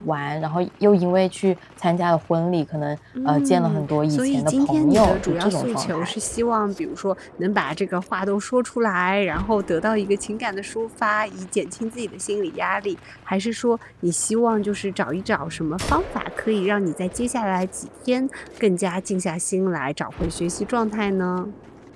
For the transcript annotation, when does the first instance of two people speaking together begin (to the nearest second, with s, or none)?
3 s